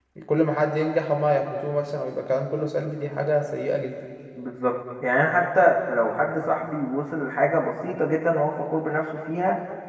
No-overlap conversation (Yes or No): Yes